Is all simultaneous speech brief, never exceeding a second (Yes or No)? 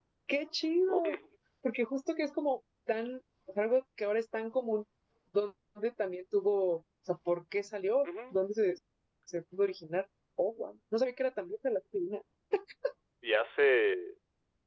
Yes